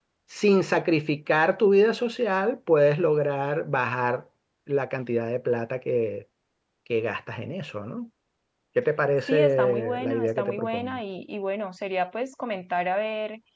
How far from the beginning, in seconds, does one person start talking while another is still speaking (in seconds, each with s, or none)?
9.3 s